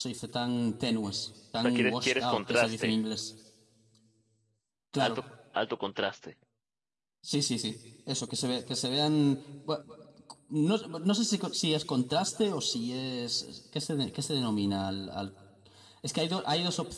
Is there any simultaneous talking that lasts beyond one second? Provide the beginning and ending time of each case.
1.6-3.0

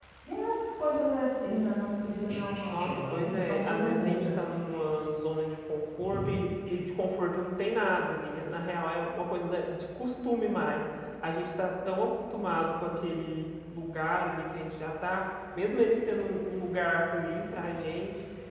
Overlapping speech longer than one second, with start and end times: 2.7-4.4

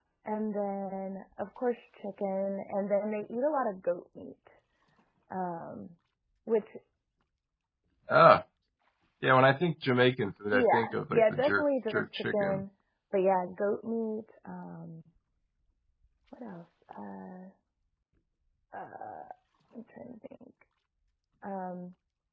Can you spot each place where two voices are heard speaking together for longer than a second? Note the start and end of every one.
10.5-12.6

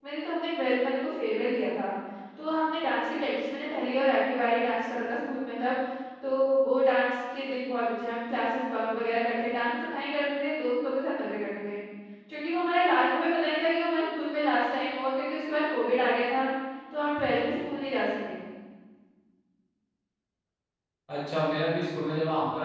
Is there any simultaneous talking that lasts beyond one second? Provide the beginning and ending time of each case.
none

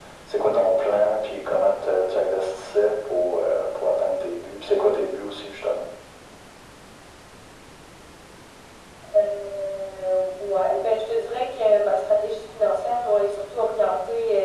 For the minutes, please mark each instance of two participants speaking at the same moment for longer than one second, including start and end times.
none

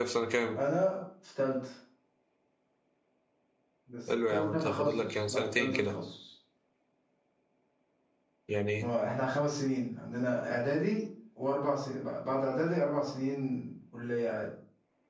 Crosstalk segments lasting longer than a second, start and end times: 4.3-6.0

